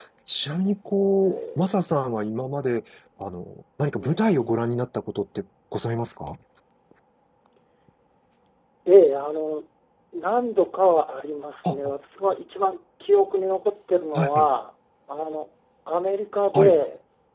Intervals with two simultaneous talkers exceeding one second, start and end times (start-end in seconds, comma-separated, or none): none